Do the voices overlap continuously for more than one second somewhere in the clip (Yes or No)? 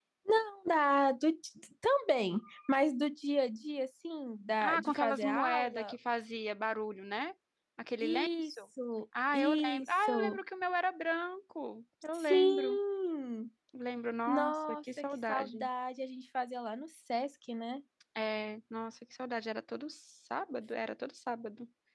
Yes